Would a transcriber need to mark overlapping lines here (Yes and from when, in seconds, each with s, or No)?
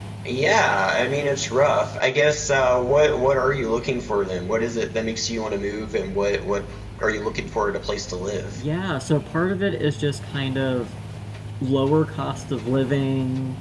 No